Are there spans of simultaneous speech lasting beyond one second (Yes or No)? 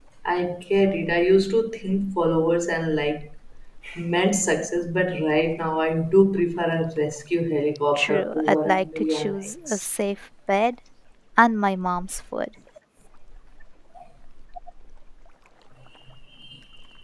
Yes